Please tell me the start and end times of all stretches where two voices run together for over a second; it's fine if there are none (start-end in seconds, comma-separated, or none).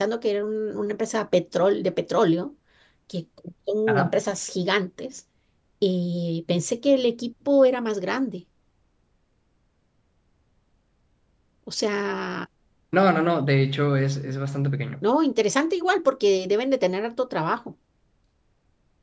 none